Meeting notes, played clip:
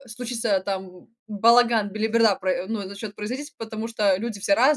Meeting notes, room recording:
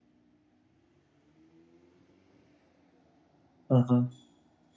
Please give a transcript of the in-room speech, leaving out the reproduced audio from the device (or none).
Ага.